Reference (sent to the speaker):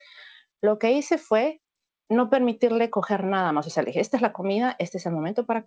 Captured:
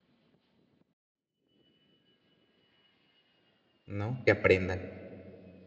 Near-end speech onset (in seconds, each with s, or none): 3.9 s